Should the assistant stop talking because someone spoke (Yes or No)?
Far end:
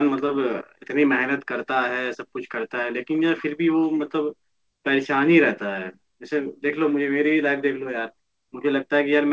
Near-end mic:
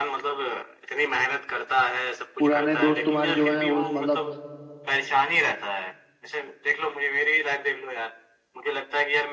Yes